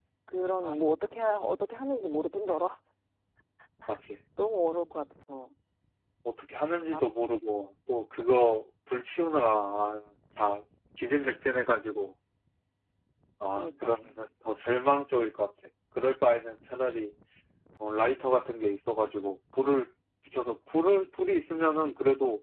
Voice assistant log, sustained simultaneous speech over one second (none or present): none